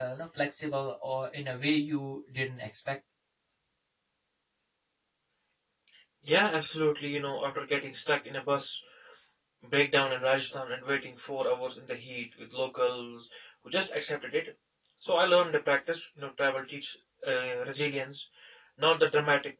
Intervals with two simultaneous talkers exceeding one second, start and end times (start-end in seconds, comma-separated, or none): none